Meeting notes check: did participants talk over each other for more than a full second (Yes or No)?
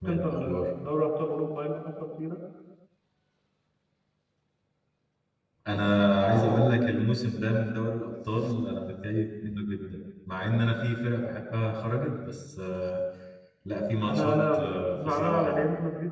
Yes